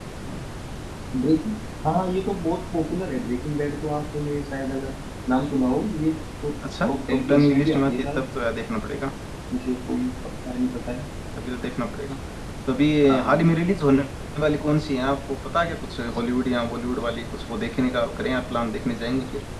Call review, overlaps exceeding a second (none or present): present